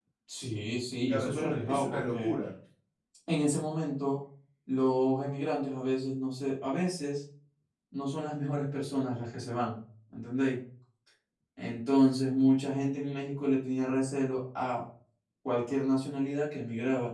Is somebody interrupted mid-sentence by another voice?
Yes, from 1.1 s

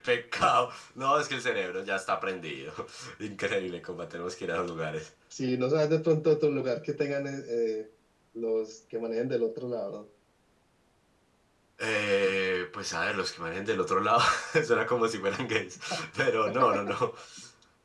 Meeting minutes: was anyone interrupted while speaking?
No

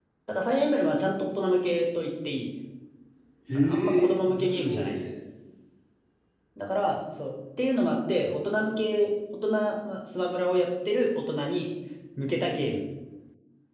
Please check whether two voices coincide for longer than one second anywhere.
Yes, from 3.5 s

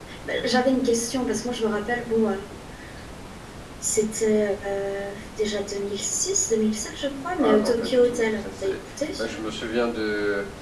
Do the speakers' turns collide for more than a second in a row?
Yes, from 7.4 s

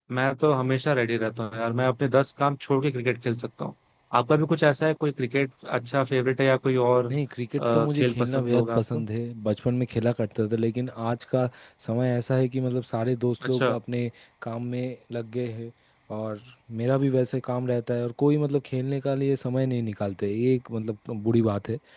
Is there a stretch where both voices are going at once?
Yes, from 7.6 s

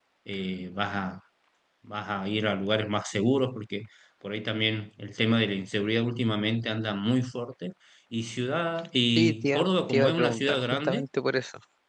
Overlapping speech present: Yes, from 9.2 s

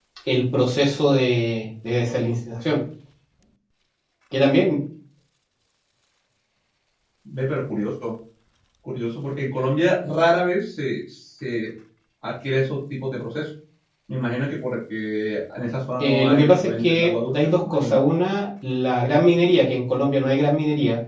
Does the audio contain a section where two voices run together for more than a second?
Yes, from 16.0 s

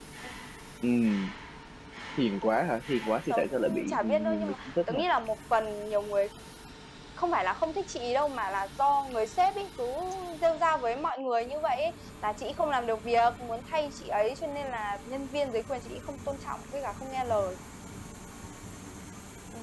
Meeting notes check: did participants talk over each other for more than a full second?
Yes, from 3.0 s

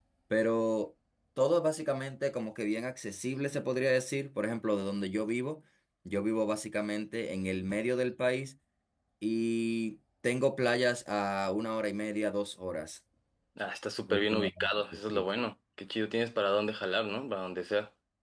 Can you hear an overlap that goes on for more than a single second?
Yes, from 14.1 s

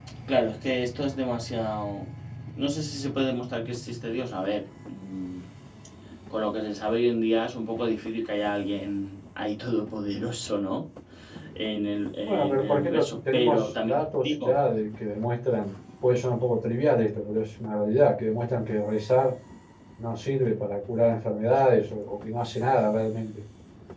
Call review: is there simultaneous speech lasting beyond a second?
Yes, from 12.3 s

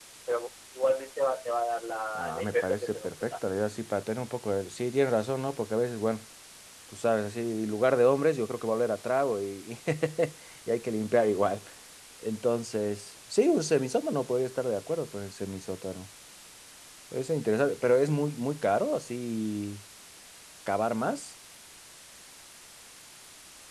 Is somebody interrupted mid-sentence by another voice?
Yes, from 2.1 s

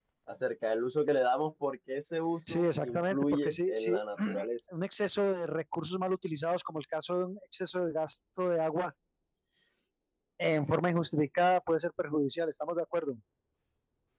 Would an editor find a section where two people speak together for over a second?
Yes, from 2.5 s

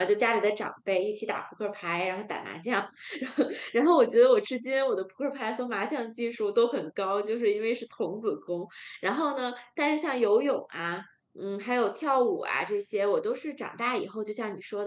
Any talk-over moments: No

